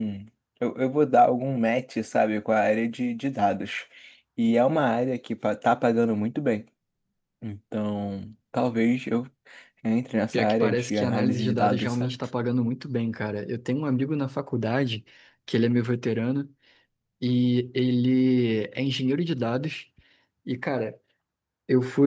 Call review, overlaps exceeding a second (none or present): present